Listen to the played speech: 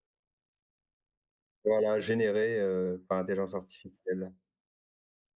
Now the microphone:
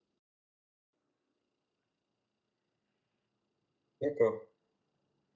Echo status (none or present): none